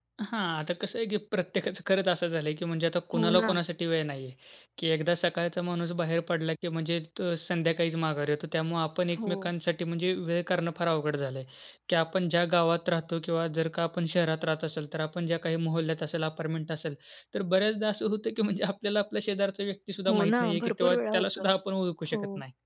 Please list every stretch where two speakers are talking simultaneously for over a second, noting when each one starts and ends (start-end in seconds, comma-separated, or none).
20.1-21.5